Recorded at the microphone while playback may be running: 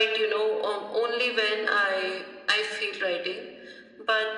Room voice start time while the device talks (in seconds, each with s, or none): none